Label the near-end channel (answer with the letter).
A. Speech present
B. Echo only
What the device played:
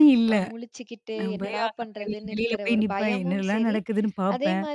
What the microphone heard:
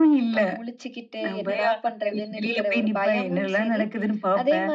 B